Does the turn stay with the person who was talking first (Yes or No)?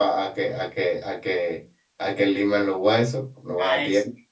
No